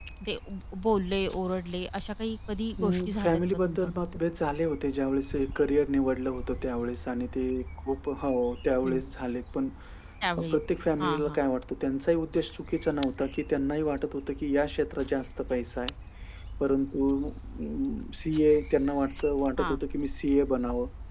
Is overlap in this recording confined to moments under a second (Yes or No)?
No